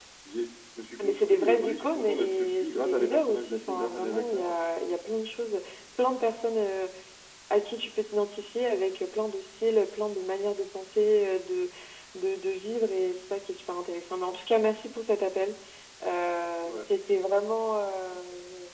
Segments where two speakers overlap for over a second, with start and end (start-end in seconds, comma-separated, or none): 1.0-4.5